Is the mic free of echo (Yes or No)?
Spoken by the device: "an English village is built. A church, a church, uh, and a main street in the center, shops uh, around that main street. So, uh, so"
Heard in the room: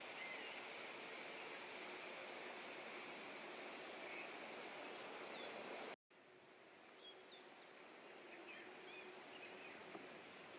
Yes